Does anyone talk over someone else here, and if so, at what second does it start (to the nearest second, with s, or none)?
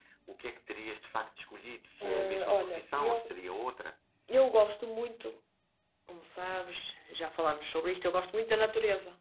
2 s